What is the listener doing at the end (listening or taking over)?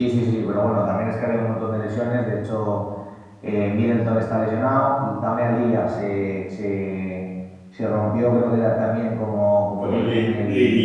taking over